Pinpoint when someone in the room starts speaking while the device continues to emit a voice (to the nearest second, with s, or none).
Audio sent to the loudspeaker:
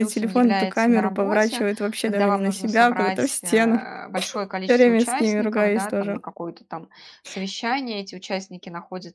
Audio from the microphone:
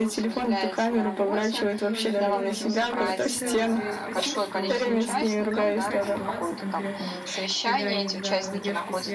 2 s